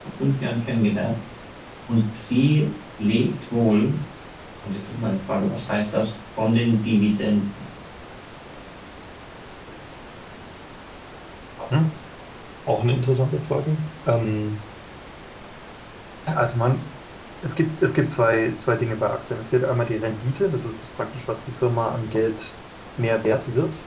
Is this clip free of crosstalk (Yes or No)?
Yes